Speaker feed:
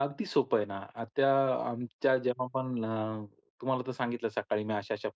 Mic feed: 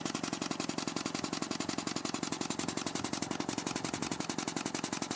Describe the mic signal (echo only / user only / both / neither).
neither